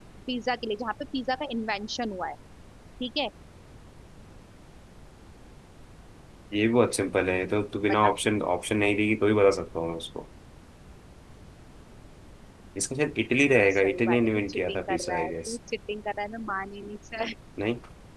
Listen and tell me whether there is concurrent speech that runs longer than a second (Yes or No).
Yes